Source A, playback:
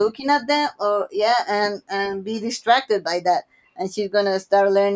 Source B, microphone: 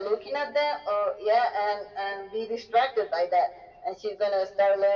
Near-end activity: none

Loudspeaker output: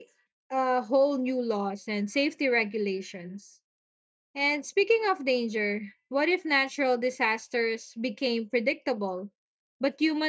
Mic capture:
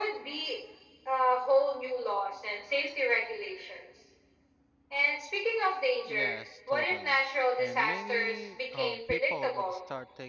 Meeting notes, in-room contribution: present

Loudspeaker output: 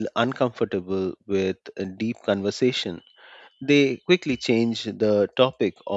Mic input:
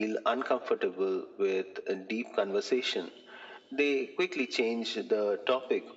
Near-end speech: none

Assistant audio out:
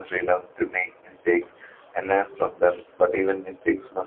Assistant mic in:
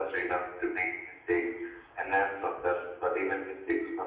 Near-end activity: none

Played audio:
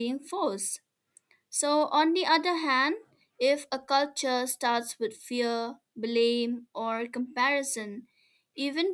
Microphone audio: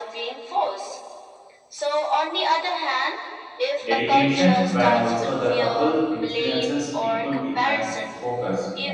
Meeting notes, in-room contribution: present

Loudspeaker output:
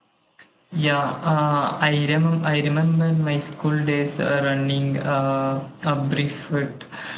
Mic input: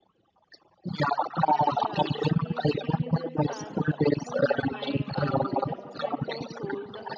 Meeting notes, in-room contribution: present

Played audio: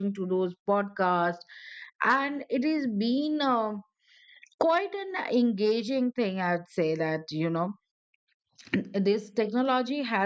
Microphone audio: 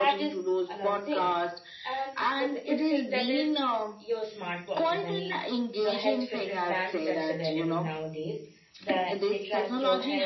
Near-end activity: present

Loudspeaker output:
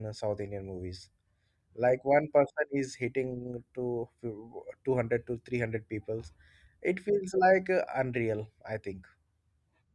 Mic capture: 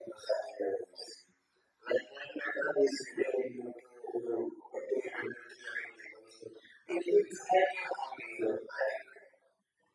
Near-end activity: none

